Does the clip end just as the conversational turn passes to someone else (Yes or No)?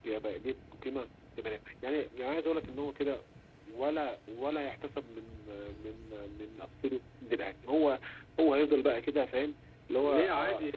Yes